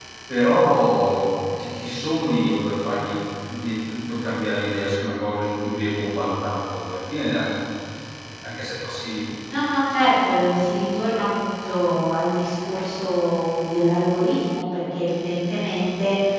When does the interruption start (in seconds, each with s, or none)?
none